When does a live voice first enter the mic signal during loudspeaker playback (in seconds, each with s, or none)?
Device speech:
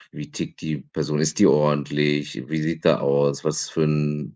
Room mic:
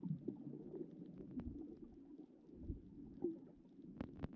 none